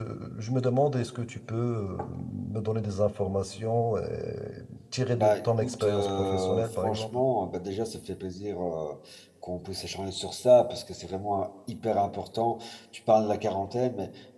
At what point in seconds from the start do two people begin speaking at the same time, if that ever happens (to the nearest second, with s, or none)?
5 s